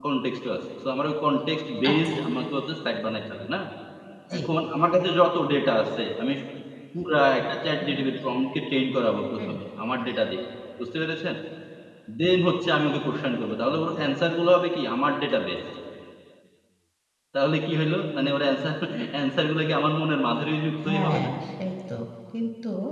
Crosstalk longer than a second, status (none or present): none